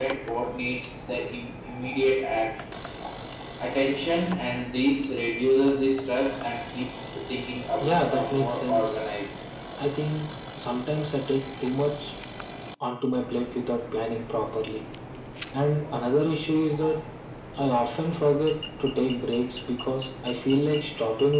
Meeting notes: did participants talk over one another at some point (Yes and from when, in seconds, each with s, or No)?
Yes, from 7.8 s